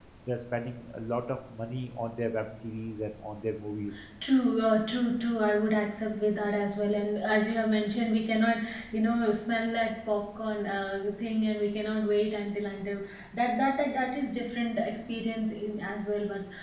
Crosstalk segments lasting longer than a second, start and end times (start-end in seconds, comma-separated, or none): none